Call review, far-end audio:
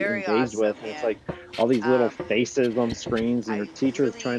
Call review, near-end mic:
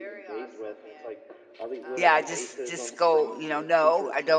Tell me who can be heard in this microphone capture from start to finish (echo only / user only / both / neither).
both